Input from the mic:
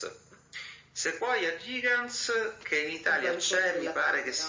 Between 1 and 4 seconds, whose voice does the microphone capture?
echo only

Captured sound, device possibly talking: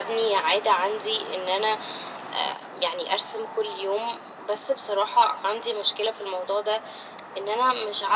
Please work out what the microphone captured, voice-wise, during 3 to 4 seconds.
echo only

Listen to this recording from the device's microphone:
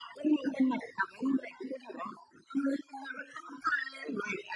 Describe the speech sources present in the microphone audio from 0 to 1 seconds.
echo only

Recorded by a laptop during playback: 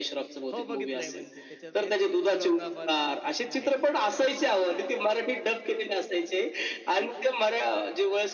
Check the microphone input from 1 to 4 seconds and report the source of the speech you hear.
both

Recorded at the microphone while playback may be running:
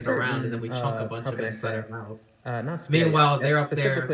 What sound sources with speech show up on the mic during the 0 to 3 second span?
both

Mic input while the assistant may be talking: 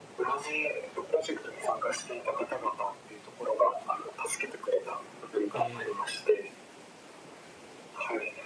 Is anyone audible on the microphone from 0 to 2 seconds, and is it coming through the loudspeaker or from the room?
echo only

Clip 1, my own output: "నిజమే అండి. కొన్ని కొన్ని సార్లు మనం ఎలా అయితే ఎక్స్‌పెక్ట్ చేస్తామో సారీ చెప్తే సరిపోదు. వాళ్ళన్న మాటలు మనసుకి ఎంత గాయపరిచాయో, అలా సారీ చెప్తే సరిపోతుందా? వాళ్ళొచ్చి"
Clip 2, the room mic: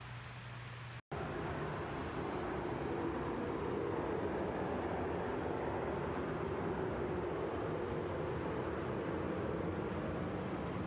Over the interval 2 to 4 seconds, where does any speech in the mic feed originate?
neither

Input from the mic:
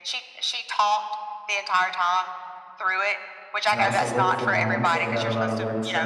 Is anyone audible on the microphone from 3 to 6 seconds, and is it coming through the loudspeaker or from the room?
both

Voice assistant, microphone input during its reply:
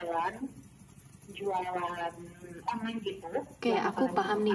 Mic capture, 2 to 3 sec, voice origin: echo only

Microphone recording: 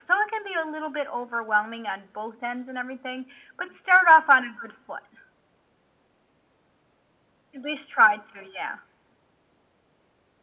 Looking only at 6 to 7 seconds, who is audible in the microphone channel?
neither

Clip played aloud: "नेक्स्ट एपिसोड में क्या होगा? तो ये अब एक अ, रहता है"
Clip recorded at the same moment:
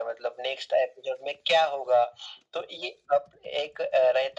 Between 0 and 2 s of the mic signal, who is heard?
echo only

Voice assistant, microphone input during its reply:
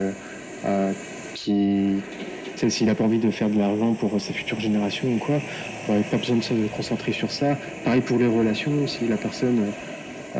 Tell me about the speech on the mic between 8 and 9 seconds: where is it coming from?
echo only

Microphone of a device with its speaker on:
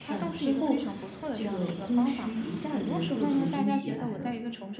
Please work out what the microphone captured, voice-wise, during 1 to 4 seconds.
both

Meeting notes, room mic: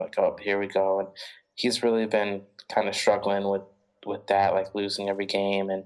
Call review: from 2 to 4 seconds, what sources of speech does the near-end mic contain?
echo only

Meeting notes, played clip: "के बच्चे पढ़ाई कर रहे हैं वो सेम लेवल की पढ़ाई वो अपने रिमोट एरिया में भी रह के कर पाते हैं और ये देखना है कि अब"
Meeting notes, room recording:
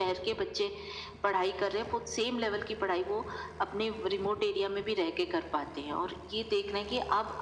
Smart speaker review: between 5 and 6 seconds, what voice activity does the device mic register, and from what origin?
echo only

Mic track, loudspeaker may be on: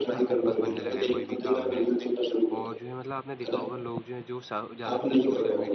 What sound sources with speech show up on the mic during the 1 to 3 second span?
both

